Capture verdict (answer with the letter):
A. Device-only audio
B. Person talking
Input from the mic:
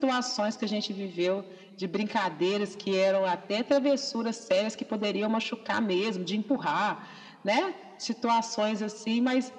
A